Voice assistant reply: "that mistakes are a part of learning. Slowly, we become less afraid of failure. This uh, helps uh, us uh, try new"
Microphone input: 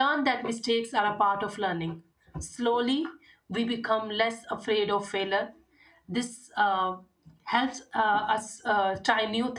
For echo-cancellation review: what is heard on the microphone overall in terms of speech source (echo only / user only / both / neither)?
echo only